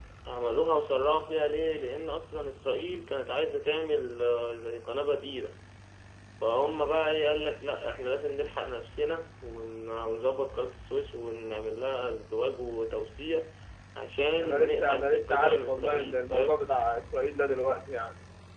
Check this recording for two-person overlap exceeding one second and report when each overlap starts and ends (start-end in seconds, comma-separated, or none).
14.4-16.7